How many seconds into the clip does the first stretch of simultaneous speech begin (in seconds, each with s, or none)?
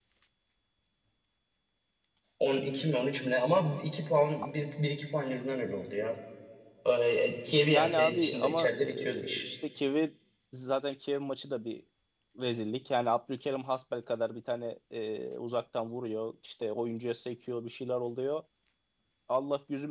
7.7 s